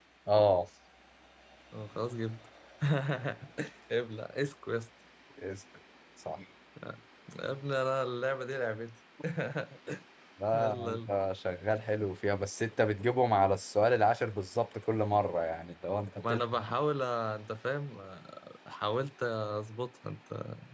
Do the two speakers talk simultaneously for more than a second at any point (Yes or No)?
No